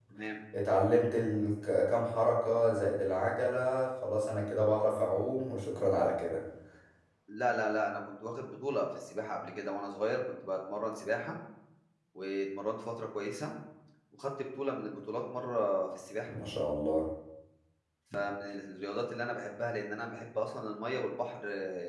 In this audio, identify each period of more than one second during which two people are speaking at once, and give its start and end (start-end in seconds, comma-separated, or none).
none